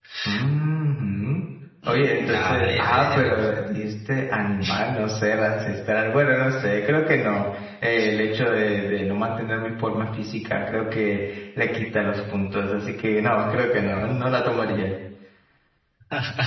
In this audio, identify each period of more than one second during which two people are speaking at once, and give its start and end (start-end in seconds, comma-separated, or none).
1.9-3.5